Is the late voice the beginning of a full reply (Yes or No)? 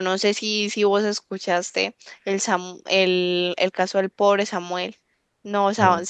No